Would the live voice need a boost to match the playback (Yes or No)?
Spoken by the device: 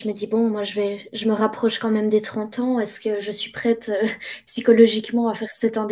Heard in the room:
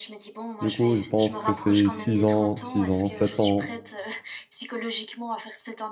No